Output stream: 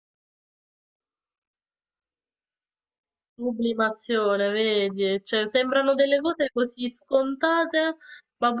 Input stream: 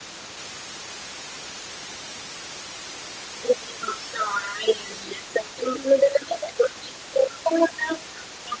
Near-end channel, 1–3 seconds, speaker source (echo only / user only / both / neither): neither